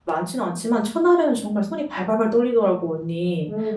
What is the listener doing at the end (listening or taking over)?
taking over